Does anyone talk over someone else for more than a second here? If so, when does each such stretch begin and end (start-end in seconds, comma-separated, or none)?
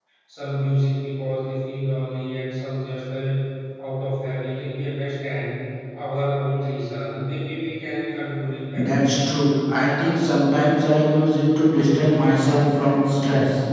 none